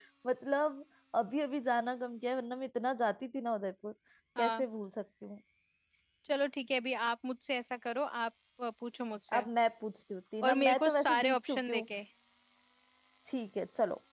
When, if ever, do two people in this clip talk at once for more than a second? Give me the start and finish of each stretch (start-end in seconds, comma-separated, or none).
10.4-11.8